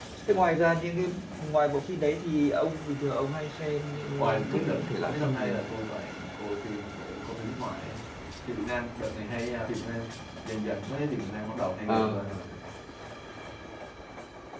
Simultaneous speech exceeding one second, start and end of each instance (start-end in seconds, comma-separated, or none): 4.2-5.6